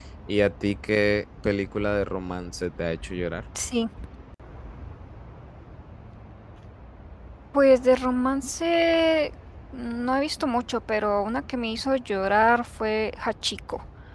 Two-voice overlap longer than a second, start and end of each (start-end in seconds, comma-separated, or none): none